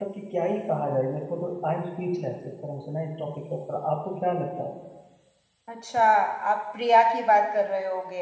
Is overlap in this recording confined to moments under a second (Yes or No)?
Yes